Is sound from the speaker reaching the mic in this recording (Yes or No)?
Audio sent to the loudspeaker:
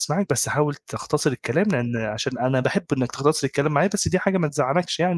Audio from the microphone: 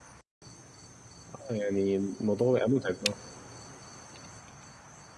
No